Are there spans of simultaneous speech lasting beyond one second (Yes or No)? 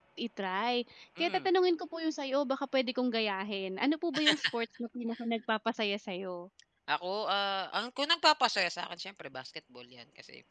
No